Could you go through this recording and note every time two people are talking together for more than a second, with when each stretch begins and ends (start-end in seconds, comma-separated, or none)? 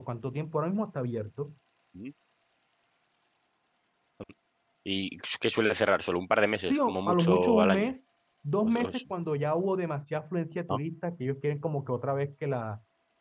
6.7-7.9